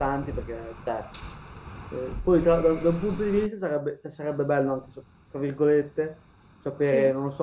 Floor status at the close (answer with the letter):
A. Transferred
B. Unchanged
B